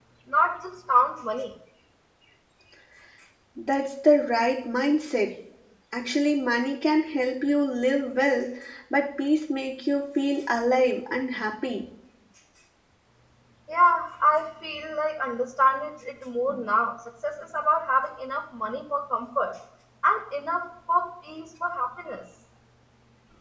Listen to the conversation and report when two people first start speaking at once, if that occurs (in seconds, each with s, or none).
none